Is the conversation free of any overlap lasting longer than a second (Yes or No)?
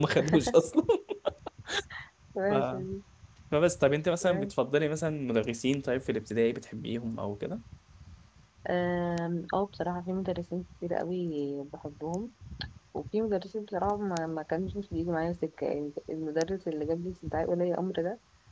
Yes